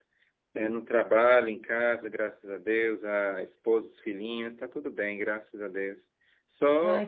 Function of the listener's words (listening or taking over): listening